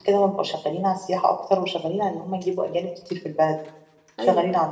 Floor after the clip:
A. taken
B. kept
B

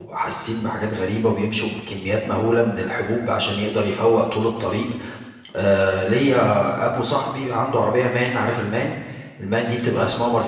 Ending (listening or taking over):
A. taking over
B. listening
B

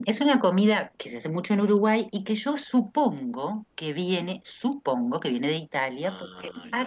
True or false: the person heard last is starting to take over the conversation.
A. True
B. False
B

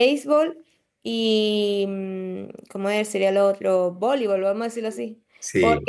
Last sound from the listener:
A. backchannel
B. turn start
A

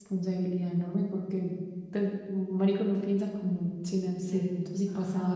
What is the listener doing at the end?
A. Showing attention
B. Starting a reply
B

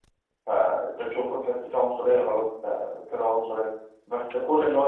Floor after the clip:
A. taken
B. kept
B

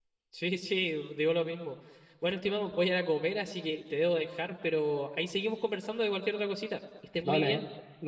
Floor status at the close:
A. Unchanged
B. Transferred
B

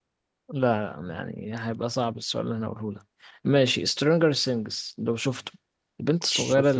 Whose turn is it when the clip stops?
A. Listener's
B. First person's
B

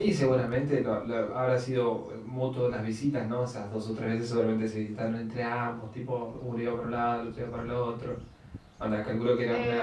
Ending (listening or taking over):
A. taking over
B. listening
A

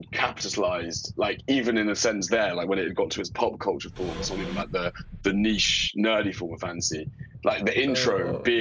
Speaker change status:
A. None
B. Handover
A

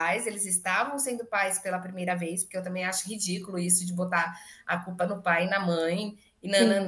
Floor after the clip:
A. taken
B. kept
B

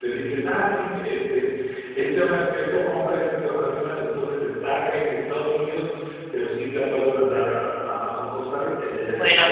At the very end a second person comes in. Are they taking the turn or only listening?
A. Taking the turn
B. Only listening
A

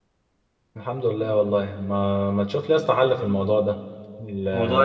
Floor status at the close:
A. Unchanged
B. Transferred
A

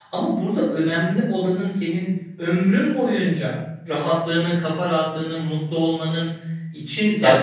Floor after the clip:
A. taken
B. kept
A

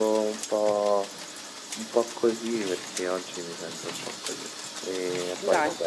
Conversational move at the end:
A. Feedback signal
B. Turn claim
A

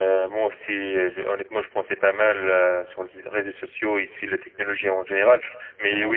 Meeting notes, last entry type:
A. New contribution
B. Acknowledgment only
B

